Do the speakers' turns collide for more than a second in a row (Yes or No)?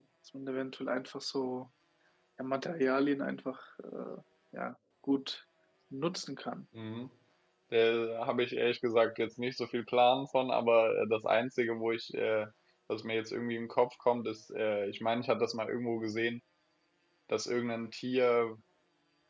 No